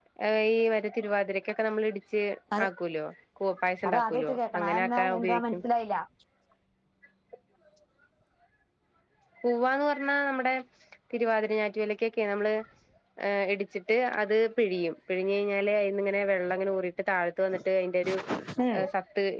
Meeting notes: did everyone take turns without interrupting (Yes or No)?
No